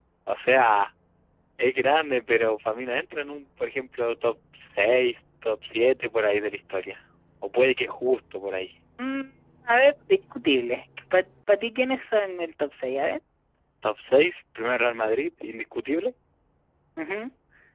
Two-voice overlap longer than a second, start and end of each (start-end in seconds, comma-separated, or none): none